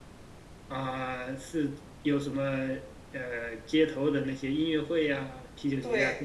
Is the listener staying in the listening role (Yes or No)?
No